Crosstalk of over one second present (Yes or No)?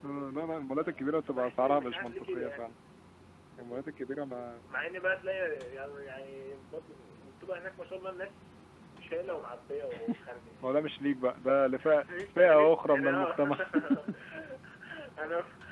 Yes